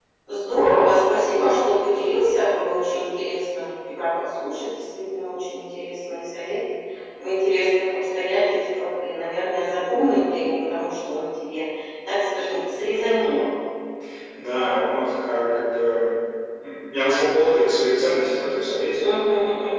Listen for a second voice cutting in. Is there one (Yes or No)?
No